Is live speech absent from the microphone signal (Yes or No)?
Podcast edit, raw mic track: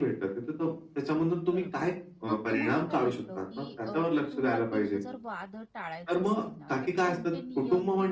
No